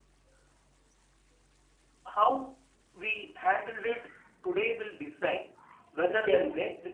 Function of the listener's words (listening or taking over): listening